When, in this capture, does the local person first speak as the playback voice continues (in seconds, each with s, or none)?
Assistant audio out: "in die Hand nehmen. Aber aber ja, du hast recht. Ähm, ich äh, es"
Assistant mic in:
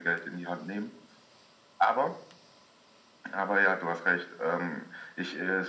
none